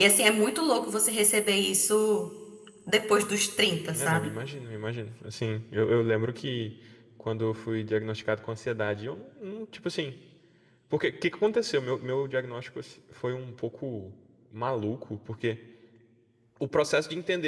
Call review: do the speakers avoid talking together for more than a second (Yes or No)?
Yes